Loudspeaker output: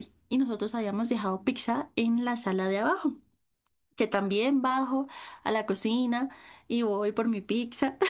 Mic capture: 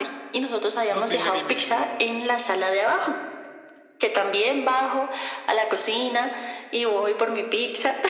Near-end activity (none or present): present